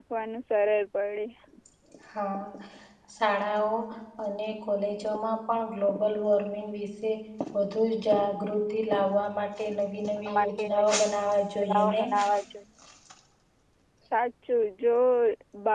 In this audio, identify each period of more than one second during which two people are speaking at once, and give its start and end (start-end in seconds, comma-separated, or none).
none